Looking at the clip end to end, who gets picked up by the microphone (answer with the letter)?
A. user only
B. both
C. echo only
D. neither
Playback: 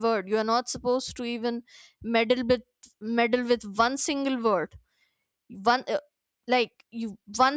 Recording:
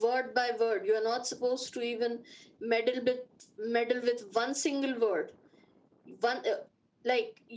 C